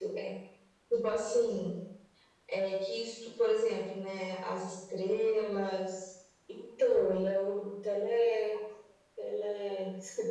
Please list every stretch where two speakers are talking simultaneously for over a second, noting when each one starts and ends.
none

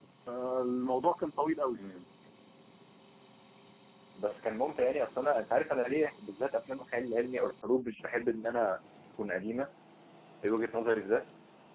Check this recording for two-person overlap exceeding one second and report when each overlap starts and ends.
none

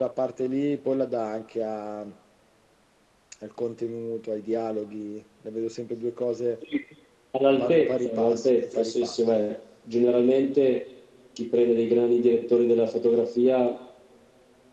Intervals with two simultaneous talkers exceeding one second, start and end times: 7.5-9.2

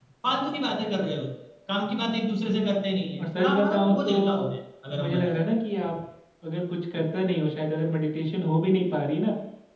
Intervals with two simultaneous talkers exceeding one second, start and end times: 3.2-4.5

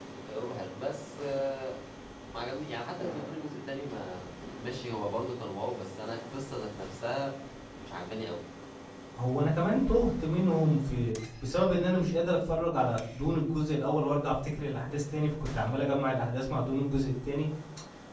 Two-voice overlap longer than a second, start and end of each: none

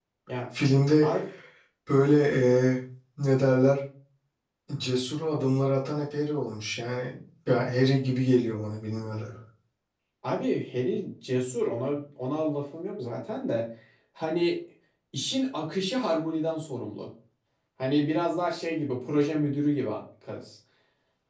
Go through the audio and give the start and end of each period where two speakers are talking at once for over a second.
none

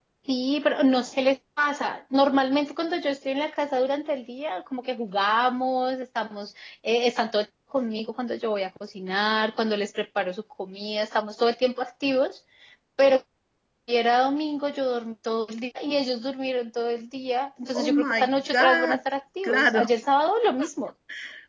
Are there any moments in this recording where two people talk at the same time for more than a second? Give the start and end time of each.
17.8-19.0

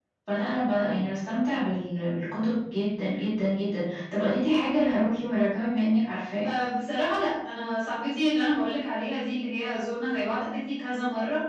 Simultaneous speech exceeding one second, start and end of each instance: none

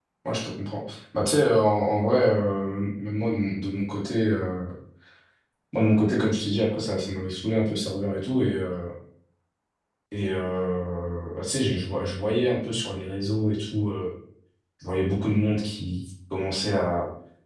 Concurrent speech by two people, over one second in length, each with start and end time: none

